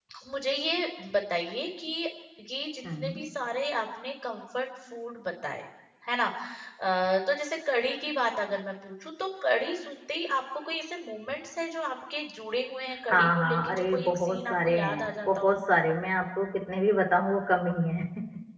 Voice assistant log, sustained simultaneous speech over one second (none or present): present